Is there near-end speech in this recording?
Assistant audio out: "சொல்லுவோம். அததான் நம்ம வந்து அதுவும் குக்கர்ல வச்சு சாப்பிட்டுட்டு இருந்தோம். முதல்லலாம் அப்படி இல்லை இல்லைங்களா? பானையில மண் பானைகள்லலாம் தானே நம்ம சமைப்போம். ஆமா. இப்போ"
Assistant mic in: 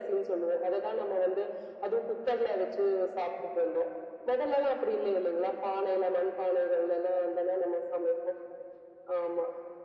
No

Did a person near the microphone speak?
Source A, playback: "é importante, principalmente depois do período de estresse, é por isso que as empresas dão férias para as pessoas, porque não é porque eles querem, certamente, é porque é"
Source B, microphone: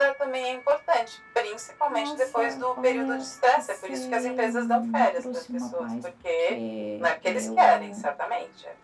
Yes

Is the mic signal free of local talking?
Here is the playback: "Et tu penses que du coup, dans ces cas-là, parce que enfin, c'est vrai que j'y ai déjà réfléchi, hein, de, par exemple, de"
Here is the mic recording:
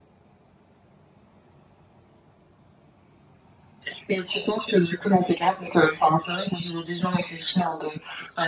Yes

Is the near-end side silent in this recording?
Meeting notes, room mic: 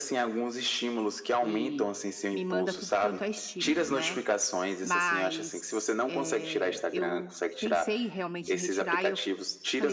No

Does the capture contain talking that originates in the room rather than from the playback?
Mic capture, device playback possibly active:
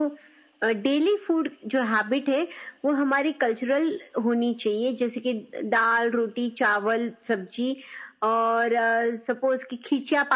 No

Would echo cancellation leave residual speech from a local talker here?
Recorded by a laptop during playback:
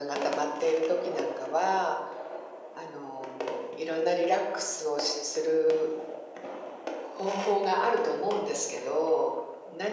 No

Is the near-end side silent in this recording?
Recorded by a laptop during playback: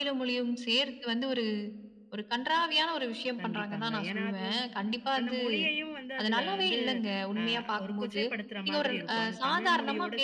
No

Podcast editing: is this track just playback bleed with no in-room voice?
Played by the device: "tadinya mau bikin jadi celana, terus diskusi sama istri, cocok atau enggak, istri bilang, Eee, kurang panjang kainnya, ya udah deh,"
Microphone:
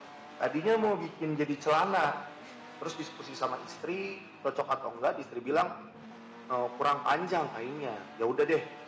Yes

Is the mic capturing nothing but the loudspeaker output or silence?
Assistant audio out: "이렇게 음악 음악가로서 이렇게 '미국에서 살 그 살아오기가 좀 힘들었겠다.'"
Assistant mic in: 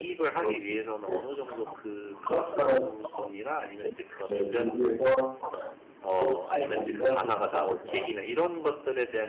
No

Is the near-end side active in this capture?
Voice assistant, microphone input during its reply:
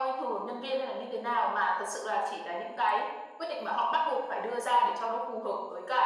No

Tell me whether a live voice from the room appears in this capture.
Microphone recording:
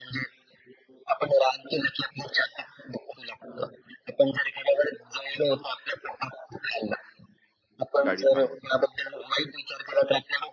Yes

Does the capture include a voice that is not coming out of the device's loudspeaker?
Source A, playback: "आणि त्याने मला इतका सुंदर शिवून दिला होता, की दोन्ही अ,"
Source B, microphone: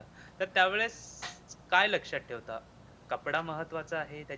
Yes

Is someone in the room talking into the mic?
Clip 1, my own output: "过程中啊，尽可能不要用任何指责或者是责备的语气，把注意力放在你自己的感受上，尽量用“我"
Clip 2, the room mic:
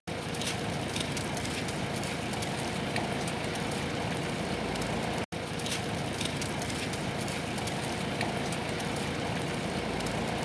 No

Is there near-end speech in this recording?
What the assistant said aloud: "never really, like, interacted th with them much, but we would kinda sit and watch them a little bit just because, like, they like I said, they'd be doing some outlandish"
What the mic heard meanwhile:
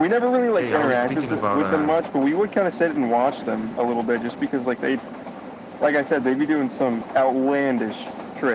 Yes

